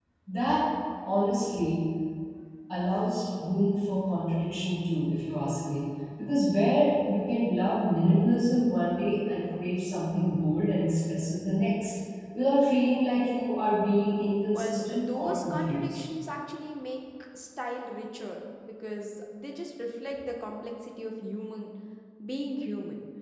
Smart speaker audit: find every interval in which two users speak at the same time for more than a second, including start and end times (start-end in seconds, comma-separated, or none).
14.5-16.0